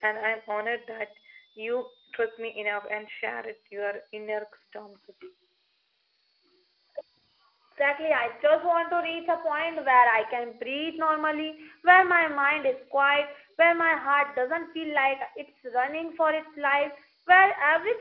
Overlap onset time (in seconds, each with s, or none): none